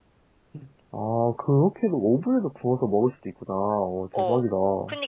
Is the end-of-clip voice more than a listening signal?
Yes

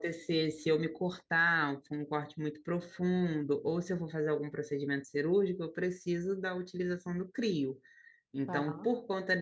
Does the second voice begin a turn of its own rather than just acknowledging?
No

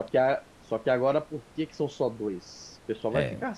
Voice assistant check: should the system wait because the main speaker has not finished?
Yes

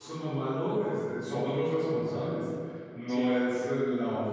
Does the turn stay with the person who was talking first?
Yes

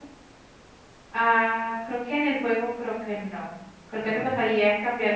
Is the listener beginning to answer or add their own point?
No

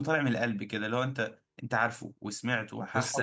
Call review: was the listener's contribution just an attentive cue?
No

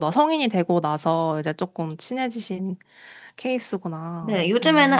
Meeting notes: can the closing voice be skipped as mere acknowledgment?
No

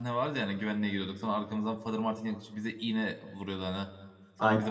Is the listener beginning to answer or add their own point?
No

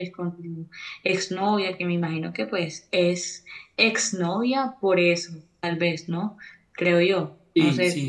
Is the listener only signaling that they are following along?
No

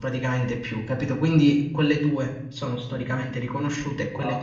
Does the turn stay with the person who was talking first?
Yes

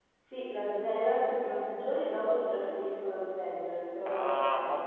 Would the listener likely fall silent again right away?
No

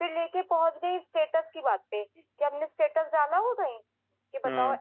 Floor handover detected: No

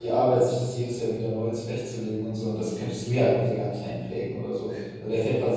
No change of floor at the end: Yes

